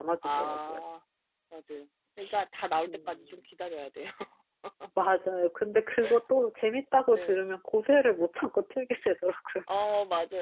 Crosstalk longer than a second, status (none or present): none